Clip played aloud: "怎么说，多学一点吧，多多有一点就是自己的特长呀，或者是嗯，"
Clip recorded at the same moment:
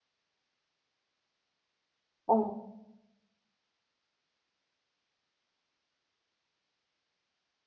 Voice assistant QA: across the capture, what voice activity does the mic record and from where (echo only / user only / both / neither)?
user only